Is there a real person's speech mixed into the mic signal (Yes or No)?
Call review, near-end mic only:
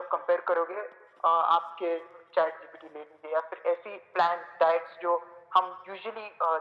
No